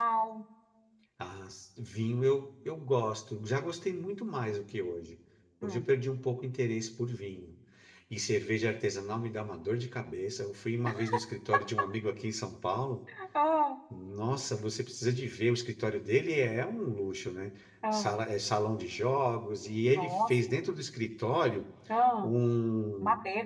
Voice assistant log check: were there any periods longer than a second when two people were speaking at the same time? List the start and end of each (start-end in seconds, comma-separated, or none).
none